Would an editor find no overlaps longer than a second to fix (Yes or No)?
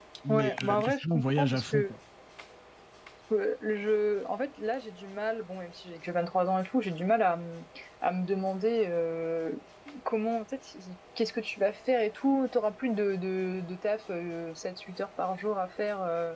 No